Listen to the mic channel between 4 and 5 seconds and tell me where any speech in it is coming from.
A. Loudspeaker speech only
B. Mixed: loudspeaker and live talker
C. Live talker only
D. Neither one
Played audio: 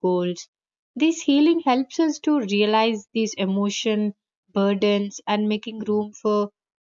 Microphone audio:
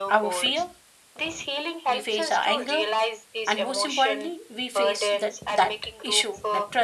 B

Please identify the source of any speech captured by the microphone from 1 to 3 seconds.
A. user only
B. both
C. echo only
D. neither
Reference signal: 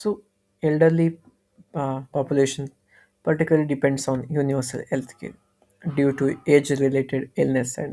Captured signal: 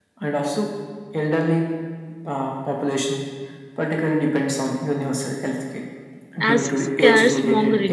C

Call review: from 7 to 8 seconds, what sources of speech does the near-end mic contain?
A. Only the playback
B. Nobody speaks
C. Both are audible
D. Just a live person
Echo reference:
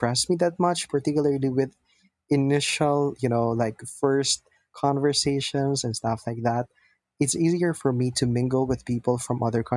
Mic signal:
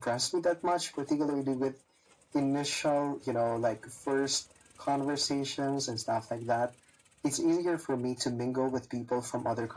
A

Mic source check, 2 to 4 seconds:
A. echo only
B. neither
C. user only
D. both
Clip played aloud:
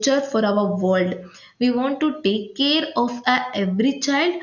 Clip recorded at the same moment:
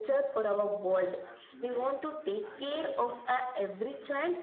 D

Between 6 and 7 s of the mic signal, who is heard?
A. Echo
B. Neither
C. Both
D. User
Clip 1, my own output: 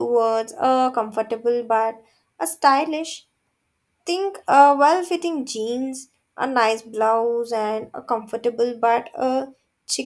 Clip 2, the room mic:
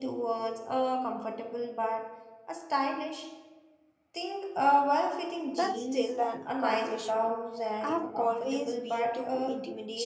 C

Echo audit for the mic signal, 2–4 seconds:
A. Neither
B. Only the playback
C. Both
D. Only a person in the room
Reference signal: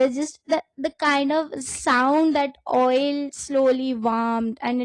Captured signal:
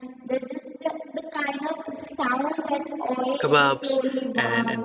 C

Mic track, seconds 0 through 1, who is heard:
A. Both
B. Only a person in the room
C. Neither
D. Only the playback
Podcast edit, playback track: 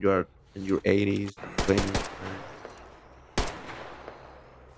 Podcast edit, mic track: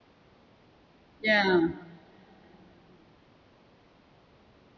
C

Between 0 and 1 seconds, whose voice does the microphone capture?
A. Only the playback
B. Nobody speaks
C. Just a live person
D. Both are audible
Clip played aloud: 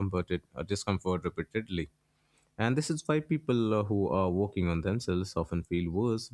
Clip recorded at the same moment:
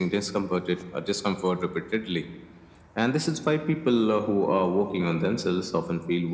A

